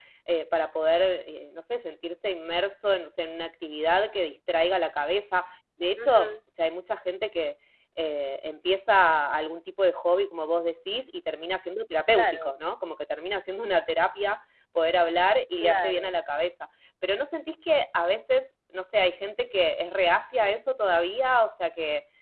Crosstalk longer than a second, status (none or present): none